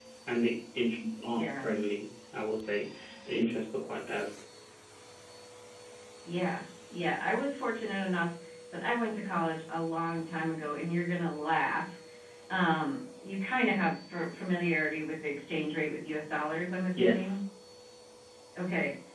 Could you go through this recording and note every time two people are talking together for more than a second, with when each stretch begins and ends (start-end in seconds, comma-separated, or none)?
none